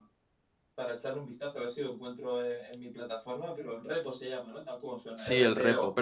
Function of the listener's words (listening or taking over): taking over